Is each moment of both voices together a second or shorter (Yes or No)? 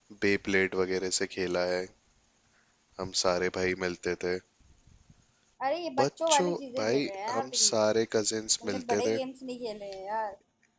No